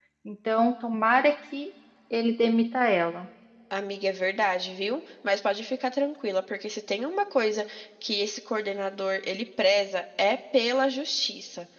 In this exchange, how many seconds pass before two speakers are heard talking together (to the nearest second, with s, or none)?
none